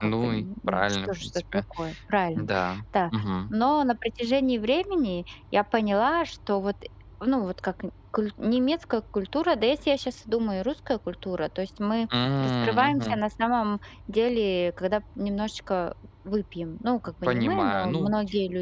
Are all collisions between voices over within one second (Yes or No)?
No